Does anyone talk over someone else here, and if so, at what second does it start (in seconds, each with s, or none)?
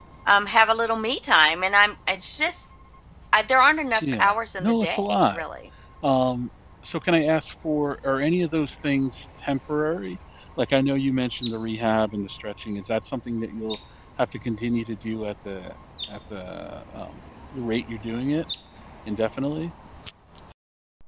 4.0 s